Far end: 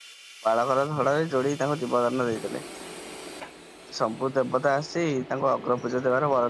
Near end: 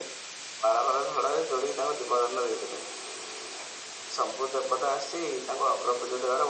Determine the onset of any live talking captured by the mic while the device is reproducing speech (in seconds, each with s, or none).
none